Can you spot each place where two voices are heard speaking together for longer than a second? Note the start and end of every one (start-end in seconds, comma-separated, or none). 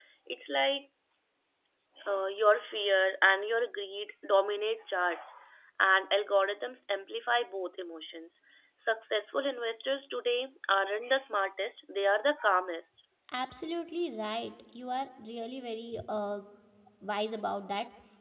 none